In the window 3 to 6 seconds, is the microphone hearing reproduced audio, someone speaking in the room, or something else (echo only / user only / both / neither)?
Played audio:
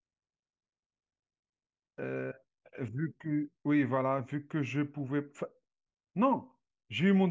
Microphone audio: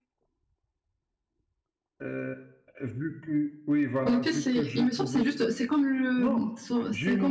both